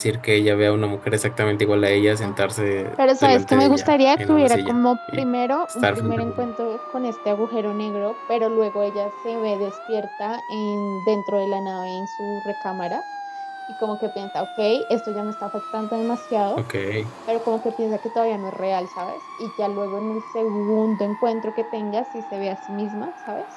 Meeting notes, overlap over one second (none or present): present